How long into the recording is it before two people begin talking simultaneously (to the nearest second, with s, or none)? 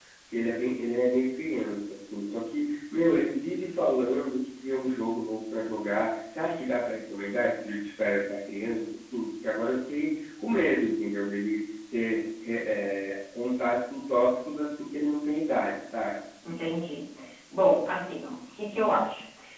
none